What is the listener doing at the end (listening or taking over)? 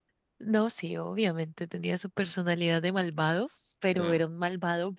listening